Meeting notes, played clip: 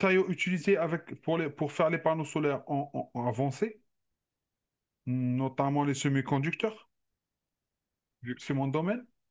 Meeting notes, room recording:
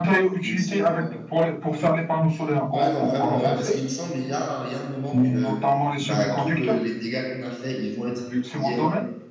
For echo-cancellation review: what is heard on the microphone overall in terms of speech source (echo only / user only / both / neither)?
both